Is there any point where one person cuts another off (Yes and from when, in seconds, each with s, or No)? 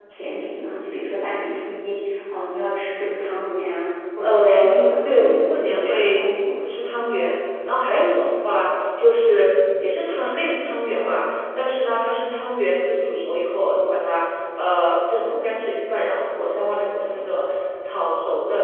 Yes, from 4.2 s